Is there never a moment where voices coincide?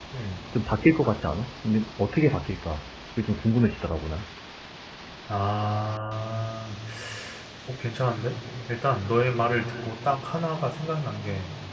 Yes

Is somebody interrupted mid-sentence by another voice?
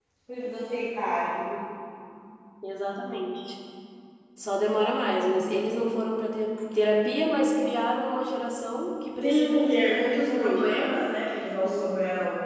Yes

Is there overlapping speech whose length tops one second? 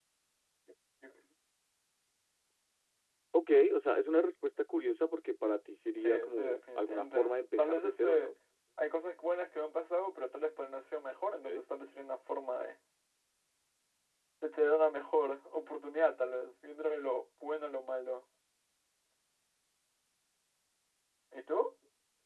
Yes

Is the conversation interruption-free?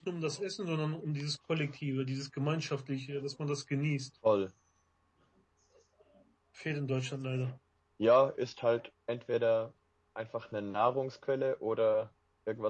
Yes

